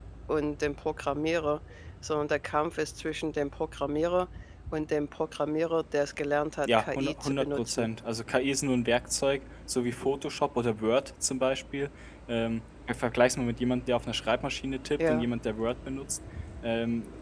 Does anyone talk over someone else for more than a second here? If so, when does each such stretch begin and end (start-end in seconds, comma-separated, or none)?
6.7-7.9